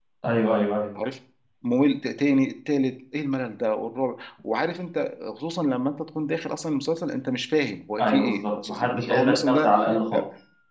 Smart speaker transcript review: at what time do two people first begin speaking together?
8.0 s

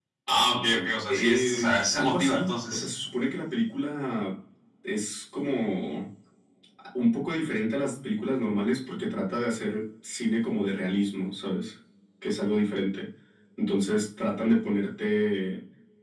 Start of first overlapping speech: 1.1 s

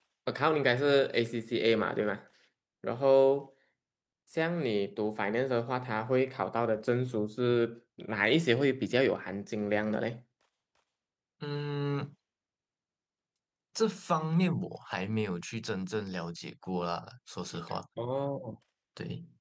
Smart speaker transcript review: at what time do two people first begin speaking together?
none

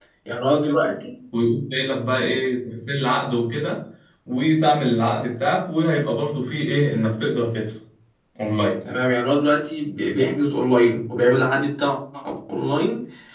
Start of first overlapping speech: none

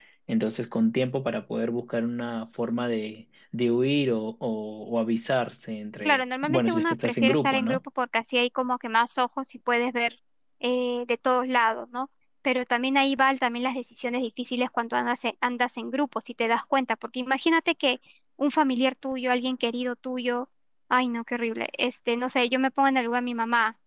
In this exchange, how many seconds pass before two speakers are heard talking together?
6.0 s

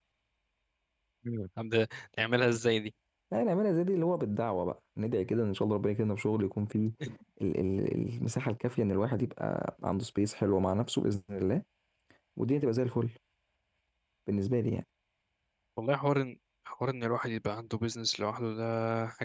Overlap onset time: none

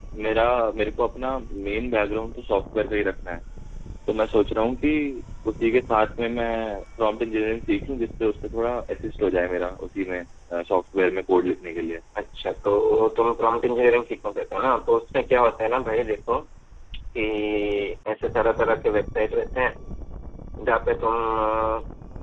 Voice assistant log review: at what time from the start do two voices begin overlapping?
none

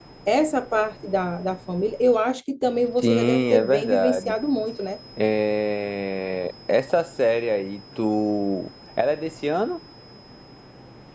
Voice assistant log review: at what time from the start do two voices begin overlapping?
3.0 s

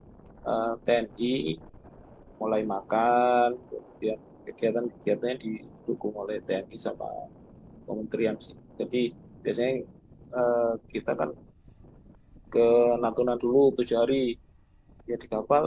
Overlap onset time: none

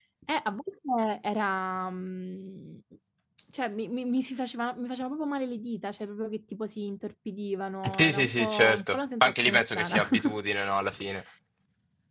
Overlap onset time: 7.8 s

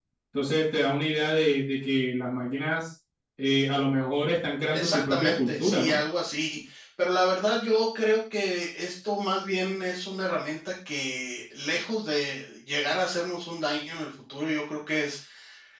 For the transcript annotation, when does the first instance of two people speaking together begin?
4.7 s

